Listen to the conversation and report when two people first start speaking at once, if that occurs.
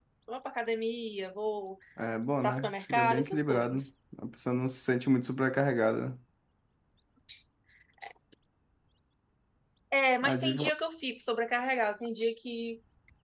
2.4 s

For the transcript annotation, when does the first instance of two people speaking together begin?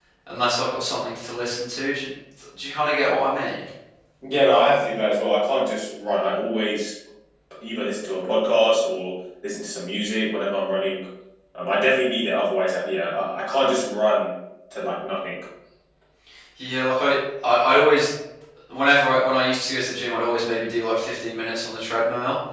none

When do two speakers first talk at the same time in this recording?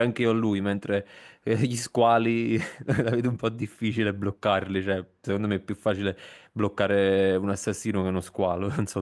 none

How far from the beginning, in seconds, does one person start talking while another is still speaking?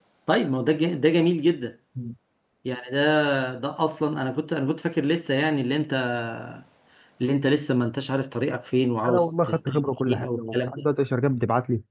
9.0 s

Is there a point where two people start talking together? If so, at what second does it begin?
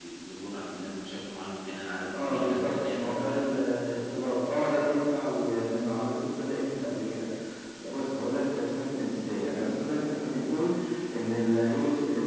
2.1 s

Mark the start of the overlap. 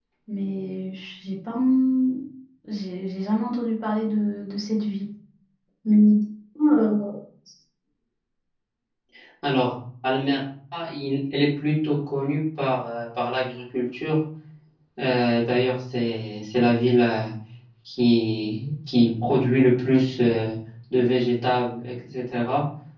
none

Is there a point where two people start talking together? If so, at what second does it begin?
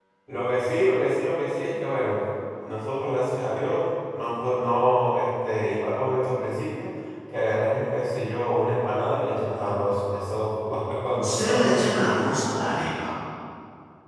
11.1 s

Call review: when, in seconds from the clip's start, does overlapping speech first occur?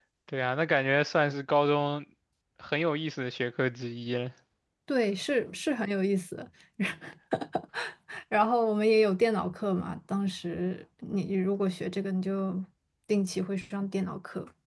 none

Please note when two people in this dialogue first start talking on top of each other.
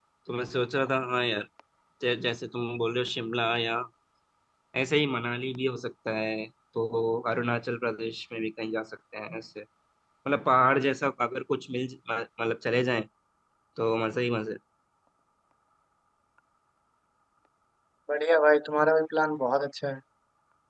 none

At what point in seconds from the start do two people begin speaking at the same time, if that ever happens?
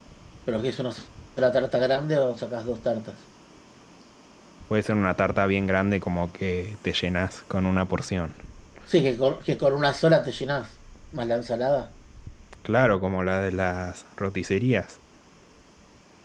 none

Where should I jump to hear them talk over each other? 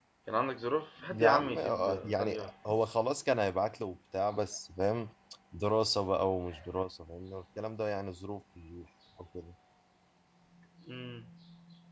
1.1 s

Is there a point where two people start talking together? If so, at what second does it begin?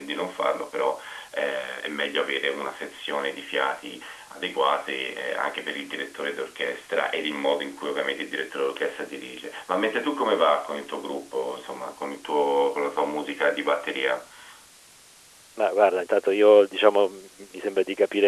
none

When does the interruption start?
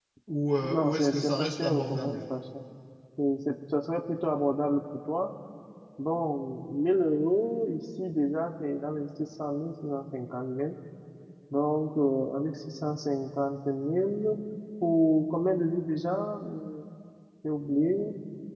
0.6 s

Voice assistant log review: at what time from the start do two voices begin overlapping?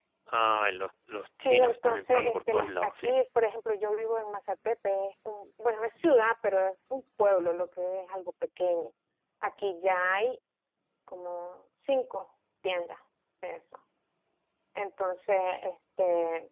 1.4 s

